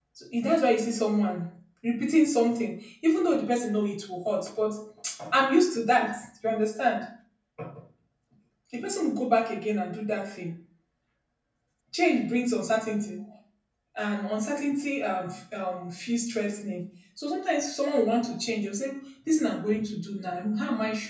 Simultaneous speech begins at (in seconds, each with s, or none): none